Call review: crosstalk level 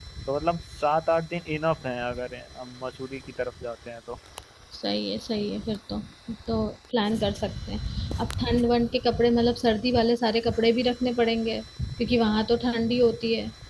none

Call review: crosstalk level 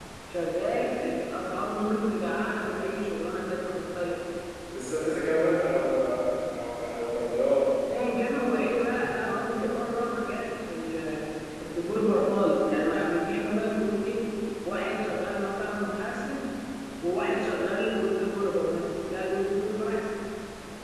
none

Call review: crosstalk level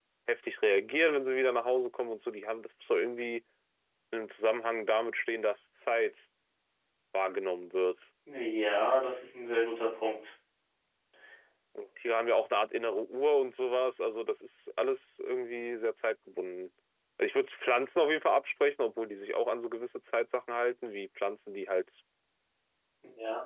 none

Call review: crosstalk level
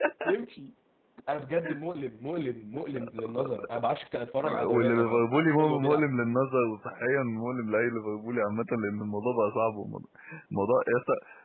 present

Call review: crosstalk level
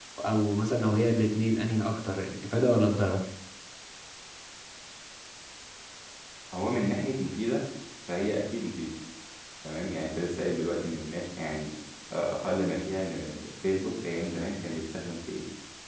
none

